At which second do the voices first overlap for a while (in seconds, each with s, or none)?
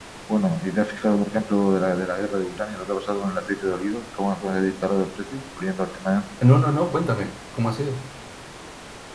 none